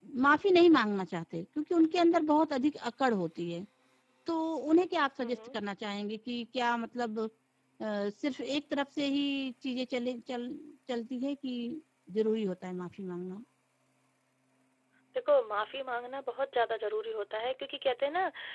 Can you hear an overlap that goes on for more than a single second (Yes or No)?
No